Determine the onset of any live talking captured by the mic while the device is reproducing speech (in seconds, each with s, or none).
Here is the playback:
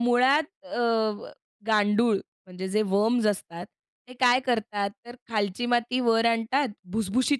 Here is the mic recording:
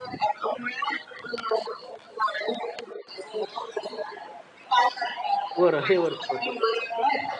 5.6 s